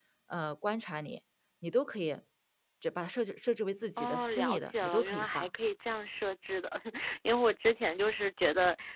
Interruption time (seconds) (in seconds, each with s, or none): 4.0 s